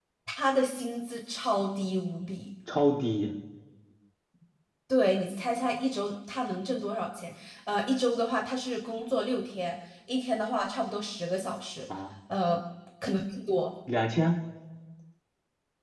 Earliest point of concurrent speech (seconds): none

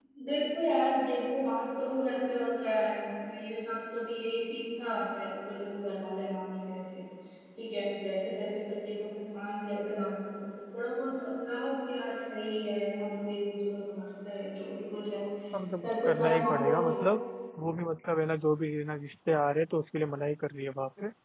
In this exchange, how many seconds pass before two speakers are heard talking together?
15.8 s

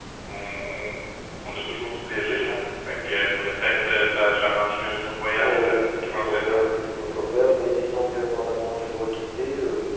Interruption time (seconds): 5.3 s

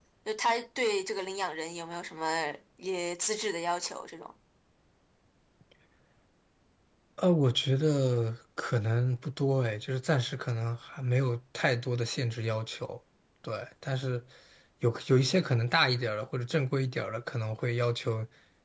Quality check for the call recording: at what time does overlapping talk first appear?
none

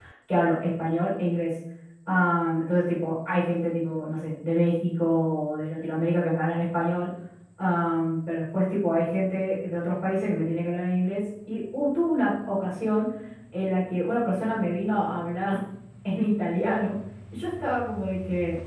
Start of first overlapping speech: none

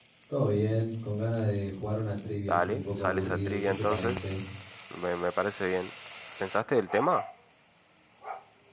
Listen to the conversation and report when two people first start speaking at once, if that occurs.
2.5 s

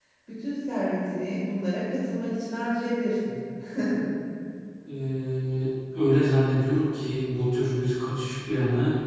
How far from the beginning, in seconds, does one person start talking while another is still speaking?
none

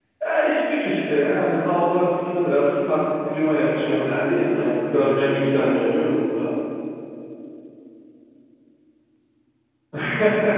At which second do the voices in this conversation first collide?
3.7 s

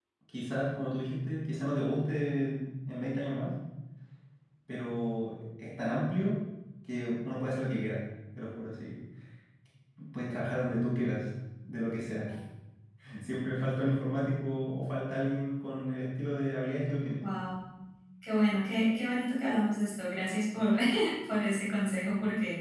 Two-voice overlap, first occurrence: none

